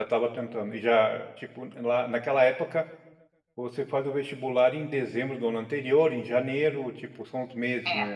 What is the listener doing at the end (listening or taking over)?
taking over